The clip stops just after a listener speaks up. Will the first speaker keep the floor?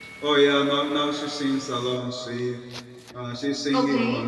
Yes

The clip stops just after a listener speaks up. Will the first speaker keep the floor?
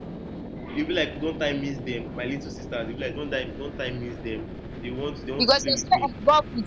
No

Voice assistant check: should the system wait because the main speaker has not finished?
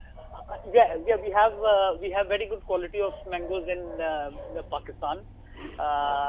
Yes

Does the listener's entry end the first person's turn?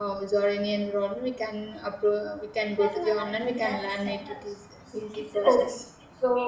Yes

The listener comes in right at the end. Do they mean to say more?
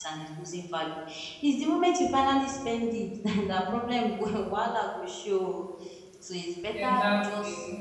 No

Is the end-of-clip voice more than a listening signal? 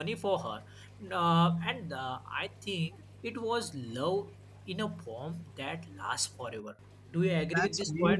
Yes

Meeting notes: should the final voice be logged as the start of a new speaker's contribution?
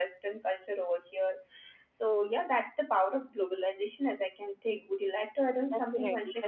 Yes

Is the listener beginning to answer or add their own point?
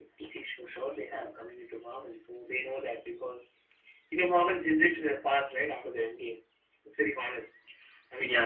No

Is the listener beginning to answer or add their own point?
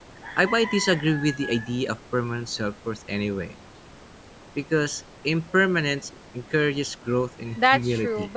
Yes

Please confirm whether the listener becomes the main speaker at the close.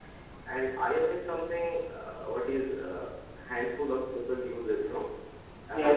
No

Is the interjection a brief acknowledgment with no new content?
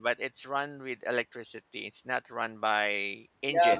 No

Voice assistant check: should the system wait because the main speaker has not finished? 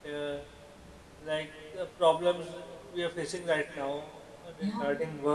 Yes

